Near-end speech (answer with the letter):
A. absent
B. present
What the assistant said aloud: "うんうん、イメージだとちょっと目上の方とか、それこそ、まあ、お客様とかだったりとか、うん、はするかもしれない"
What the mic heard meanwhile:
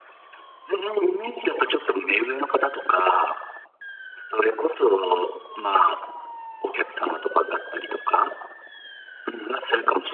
A